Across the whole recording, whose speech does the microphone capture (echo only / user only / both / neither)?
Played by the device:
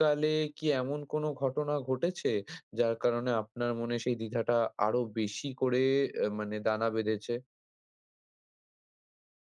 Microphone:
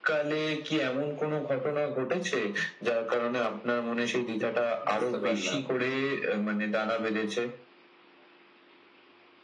both